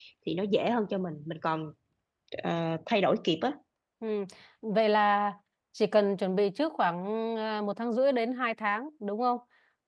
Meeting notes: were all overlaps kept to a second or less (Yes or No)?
Yes